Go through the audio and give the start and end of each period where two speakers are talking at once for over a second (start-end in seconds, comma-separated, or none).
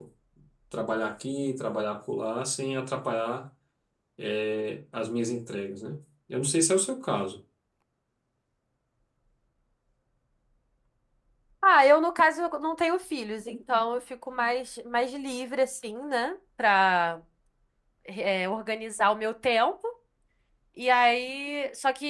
none